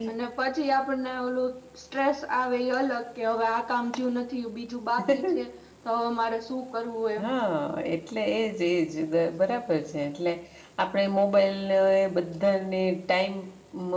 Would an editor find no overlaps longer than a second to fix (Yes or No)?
Yes